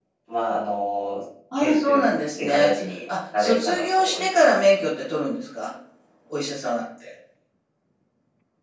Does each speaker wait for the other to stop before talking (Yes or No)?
No